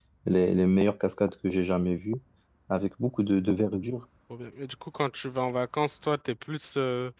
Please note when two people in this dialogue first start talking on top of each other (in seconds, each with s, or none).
none